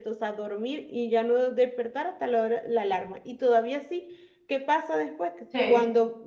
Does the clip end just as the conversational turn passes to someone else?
No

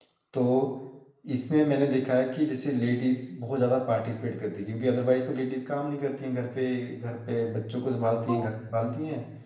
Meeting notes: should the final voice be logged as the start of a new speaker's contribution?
No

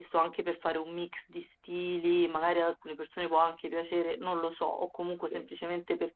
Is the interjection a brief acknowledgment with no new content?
Yes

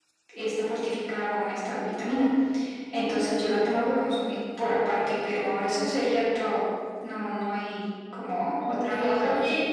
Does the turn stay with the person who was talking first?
No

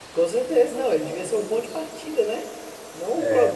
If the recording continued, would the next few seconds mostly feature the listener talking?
Yes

